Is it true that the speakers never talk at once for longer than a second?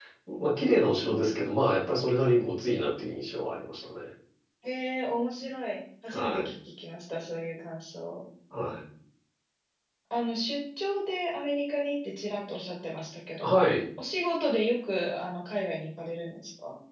Yes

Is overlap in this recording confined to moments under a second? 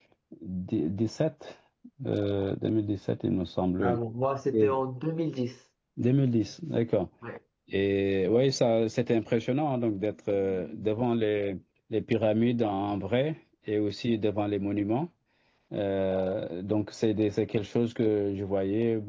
Yes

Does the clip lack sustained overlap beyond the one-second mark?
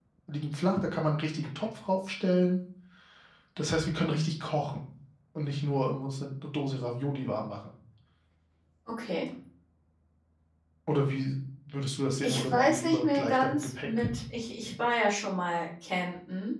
No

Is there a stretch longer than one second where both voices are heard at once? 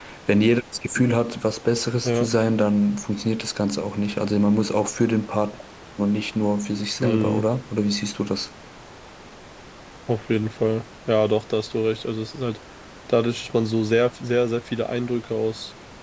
No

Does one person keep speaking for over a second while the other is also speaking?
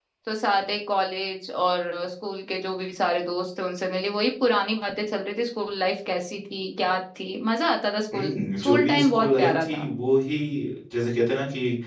Yes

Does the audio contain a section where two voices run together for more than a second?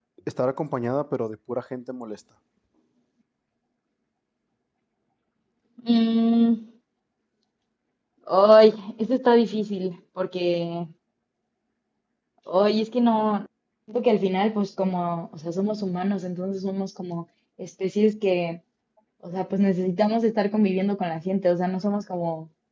No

